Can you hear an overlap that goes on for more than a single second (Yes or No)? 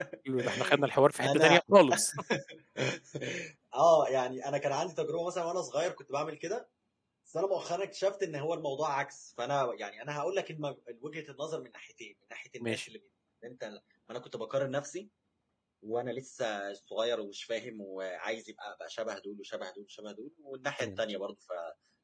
No